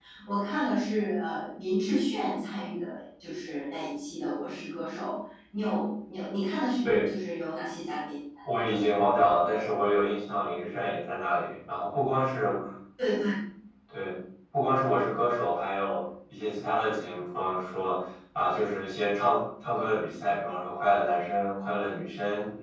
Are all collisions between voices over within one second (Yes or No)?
Yes